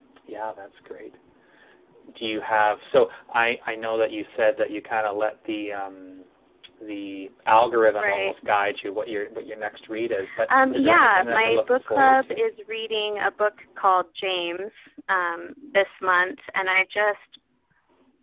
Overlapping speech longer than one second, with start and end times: 10.5-12.4

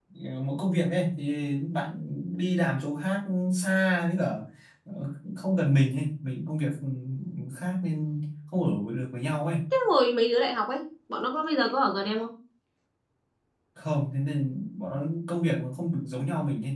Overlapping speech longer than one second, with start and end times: none

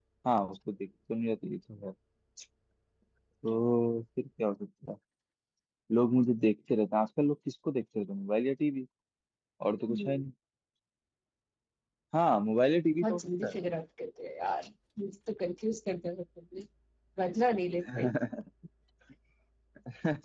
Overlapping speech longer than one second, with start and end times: none

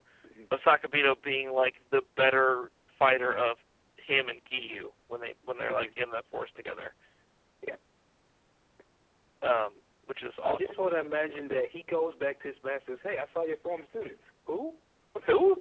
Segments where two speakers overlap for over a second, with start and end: none

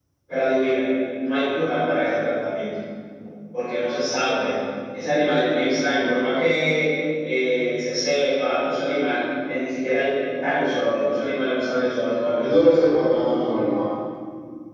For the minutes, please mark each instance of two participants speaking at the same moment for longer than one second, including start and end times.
none

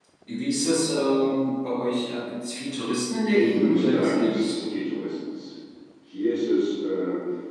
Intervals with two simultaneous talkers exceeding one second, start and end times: 3.3-4.6

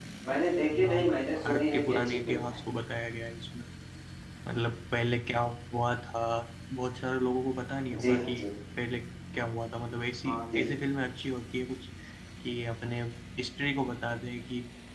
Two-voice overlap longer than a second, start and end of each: 0.8-2.6

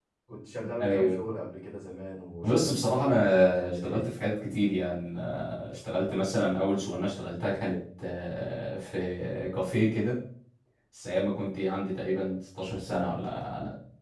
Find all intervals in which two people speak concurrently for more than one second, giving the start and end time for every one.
2.4-4.0

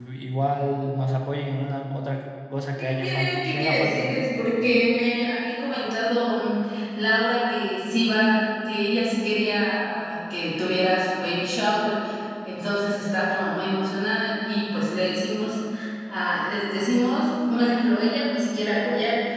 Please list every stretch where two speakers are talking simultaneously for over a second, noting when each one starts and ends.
2.8-4.1

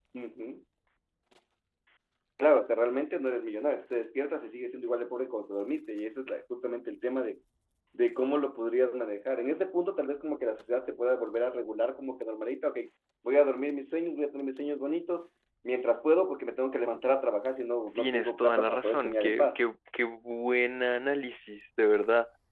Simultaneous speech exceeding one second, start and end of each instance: 18.0-19.6

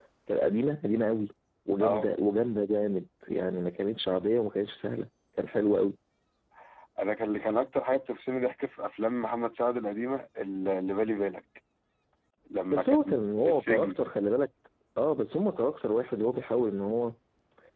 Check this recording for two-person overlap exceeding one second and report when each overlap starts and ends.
12.7-14.0

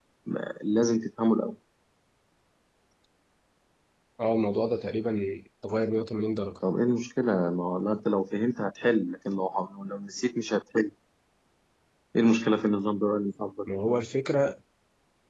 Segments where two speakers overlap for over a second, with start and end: none

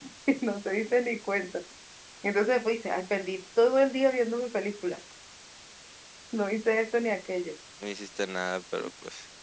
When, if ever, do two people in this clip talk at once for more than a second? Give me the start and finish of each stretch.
none

